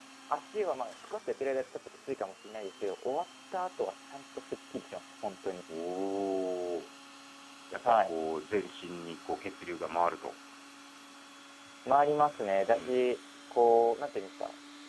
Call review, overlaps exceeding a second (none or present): none